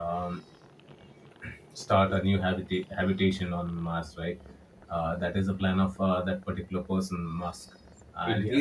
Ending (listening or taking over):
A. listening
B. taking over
A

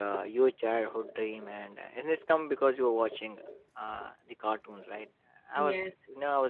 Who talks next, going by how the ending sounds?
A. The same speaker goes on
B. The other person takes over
A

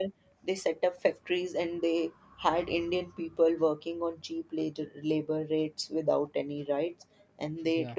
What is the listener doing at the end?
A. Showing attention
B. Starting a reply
A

